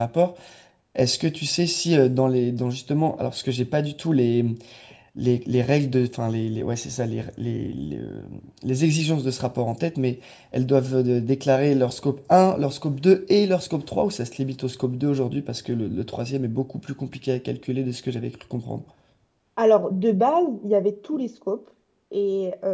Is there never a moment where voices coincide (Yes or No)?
Yes